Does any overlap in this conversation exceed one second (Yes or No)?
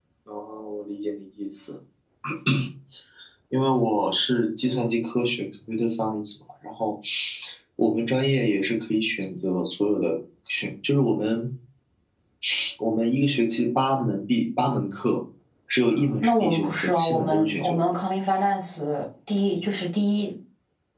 Yes